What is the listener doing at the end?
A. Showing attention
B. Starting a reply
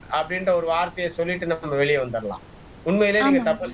A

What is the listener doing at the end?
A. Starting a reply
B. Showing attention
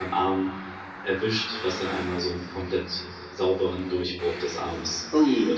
A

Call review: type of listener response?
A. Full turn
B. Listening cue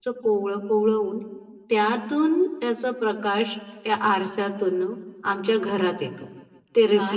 A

